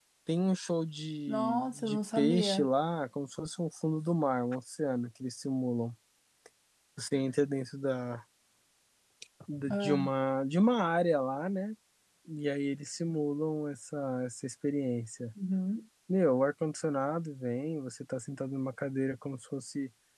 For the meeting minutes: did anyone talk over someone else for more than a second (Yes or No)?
Yes